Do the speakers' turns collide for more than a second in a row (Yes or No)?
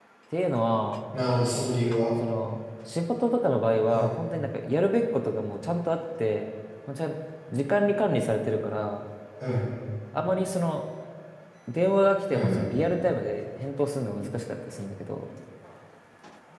No